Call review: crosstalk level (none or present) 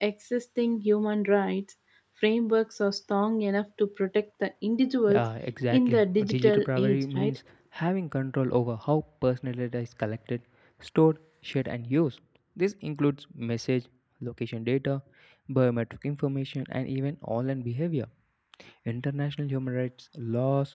present